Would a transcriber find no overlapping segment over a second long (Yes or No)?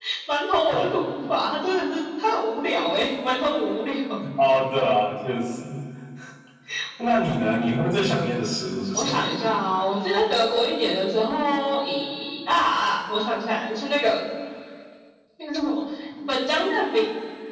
Yes